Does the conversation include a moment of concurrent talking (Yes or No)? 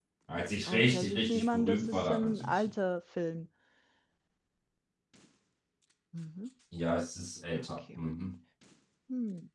Yes